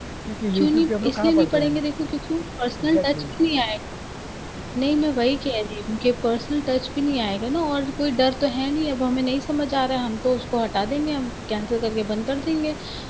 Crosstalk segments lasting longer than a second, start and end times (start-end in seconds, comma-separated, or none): 0.5-1.8